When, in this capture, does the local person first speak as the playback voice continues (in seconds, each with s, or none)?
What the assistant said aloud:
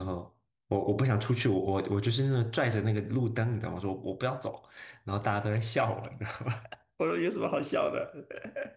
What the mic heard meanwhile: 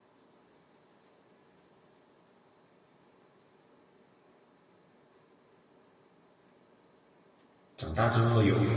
7.8 s